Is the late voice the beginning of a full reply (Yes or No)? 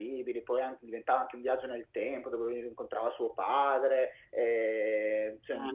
Yes